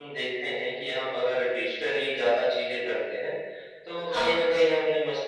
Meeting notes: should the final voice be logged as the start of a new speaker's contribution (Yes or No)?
No